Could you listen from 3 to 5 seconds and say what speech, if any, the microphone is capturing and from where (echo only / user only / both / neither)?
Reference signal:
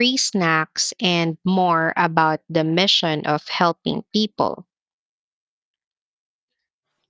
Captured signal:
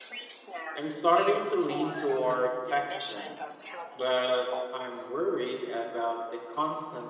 both